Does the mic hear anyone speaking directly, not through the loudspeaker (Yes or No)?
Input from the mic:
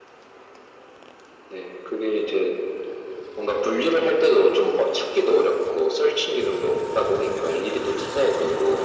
No